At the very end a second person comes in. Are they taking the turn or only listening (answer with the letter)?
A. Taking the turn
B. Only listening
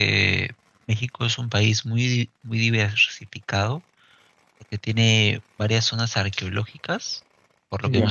B